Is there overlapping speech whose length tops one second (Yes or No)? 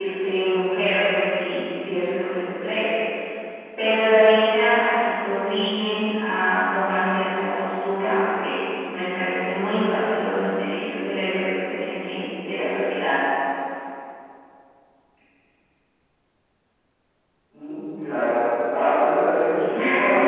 No